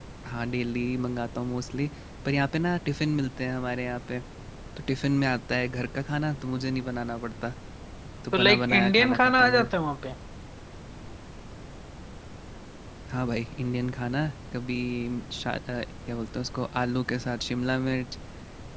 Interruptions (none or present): present